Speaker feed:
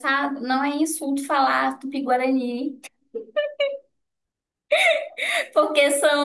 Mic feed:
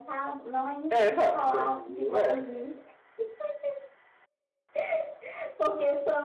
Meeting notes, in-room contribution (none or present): present